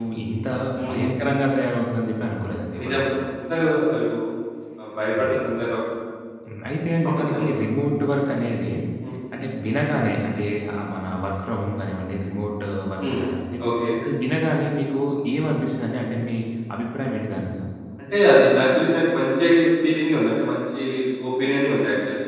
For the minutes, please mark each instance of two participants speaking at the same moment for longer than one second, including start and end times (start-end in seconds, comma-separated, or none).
none